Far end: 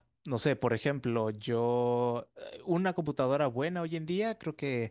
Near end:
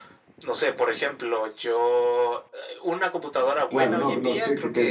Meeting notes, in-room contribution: present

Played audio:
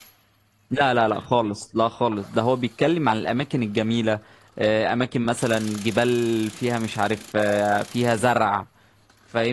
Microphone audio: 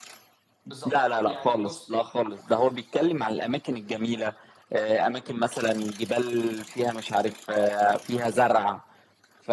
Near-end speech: present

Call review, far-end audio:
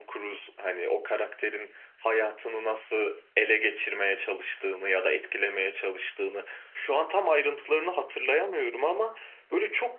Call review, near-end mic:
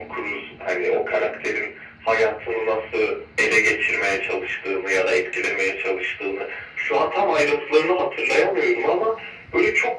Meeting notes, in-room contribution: none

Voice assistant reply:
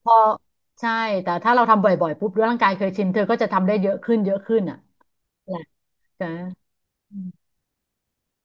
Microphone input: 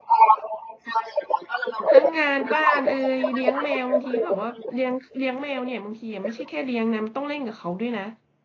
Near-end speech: present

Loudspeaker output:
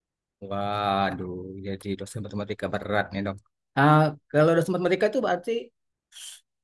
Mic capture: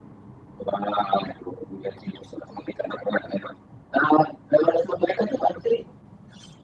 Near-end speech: none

